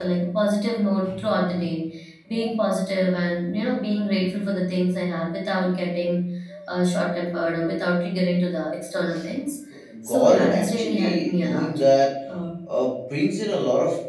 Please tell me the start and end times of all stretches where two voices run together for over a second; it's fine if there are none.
10.0-11.8

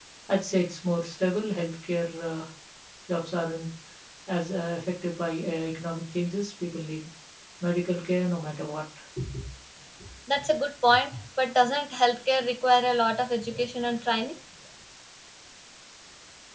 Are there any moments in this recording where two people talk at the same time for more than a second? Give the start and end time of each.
none

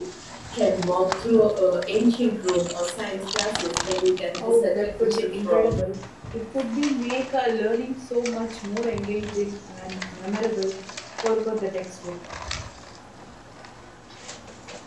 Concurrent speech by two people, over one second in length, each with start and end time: 4.4-5.8

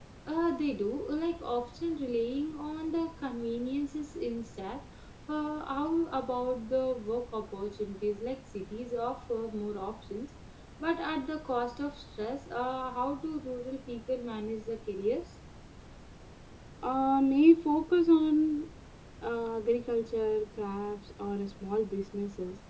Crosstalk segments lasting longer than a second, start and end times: none

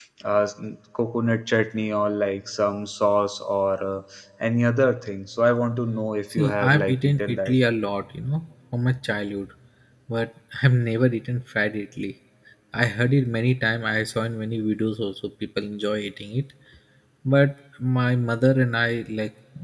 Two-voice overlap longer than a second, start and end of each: 6.3-7.5

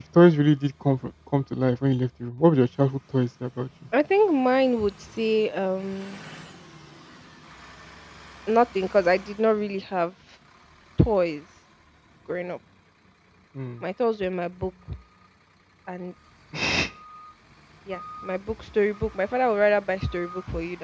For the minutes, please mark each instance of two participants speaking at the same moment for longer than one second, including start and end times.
none

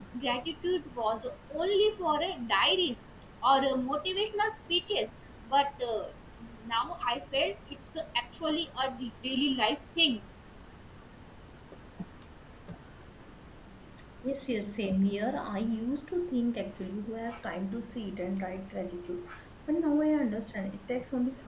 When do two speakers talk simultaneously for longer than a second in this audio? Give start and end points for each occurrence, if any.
none

